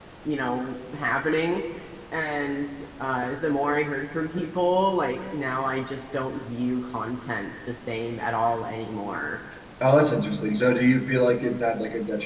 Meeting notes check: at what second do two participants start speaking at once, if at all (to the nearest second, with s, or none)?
none